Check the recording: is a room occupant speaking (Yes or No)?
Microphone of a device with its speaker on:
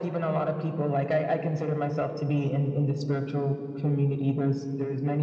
No